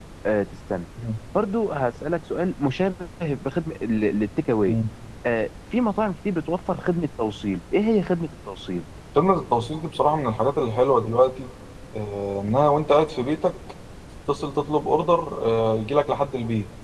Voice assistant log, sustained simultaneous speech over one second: none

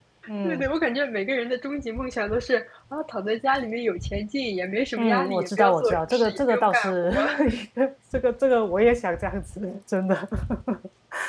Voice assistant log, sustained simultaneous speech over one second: present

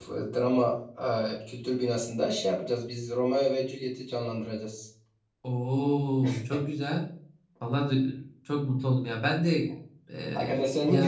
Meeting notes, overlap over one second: none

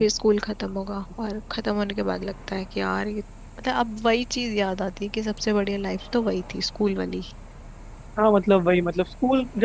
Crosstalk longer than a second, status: none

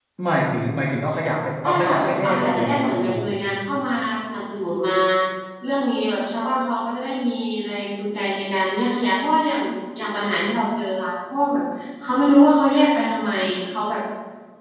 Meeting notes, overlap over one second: present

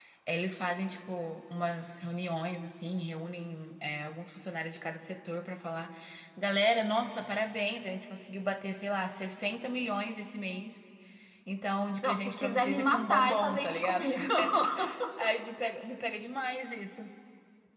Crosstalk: present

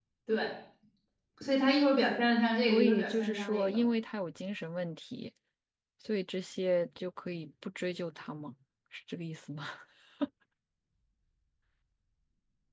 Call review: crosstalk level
present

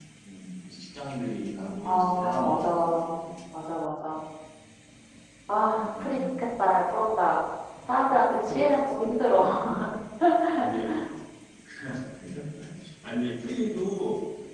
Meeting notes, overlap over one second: present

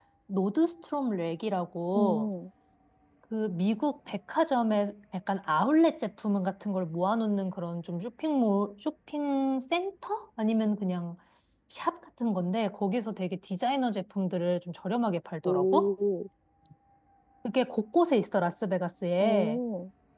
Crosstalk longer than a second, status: none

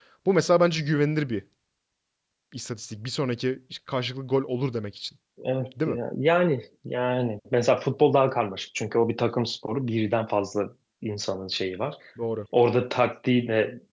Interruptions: none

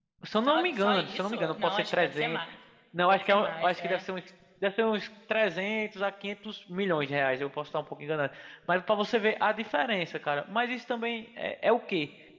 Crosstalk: present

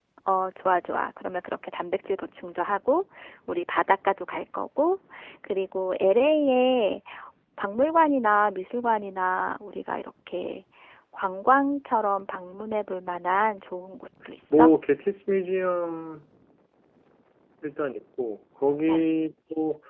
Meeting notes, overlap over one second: none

